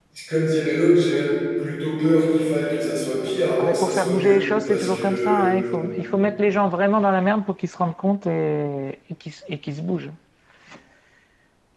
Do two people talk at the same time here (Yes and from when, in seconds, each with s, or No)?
Yes, from 3.6 s